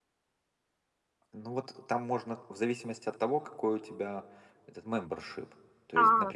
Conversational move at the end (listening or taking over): listening